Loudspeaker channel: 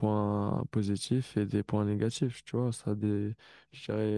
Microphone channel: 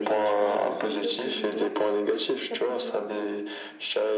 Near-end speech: present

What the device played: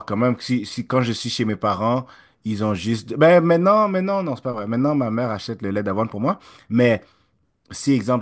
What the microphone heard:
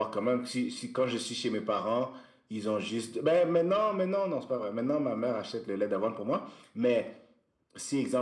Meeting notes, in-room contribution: none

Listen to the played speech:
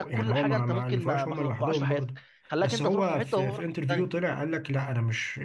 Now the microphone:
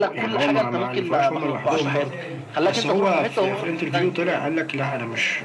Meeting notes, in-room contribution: present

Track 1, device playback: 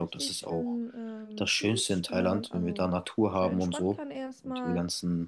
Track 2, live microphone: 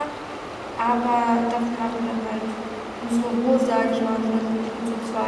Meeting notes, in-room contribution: present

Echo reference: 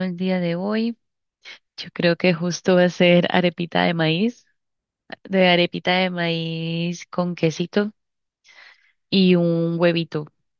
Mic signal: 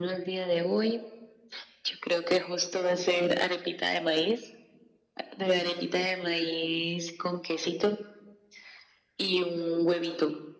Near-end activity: none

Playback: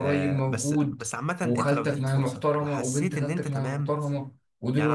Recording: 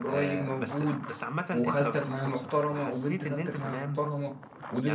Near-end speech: none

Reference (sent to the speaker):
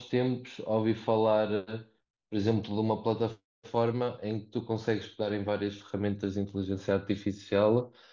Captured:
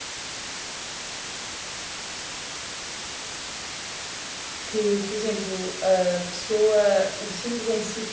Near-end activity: present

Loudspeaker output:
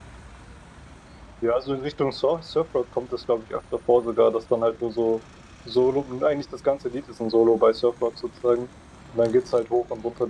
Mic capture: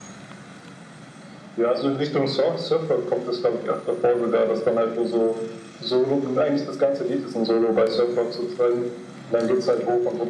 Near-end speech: none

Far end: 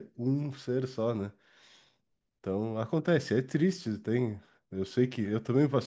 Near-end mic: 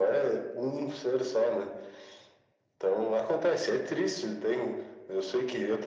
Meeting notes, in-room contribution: none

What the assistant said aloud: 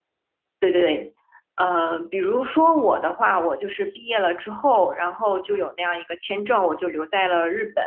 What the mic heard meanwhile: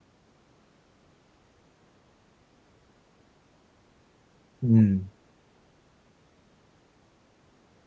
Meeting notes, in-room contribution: present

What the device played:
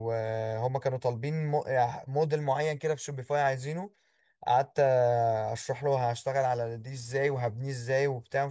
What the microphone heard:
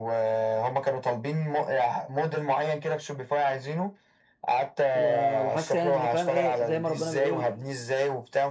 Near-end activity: present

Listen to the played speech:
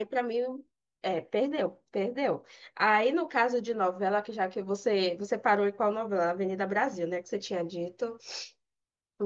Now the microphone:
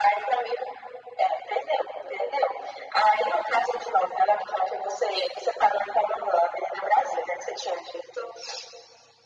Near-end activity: none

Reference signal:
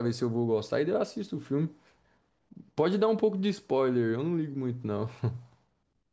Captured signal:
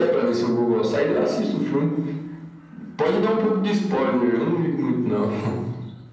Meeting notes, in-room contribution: none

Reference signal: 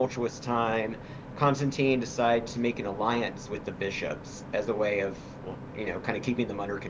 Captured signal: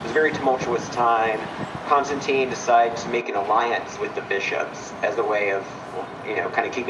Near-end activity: none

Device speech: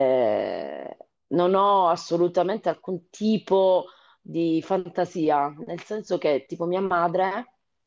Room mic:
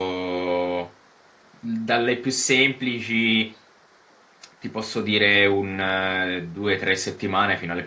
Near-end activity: present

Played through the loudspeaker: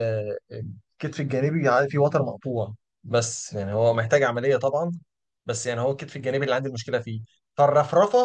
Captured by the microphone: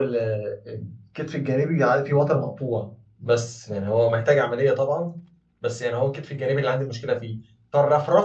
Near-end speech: none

